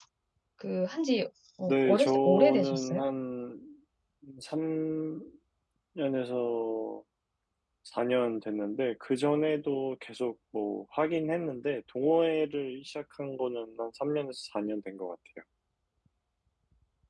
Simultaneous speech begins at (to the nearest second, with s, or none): 2 s